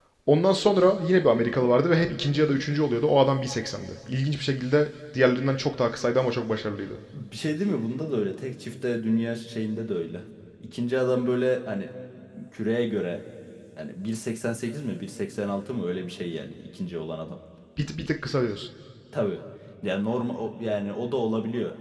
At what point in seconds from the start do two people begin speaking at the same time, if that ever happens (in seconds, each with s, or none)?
none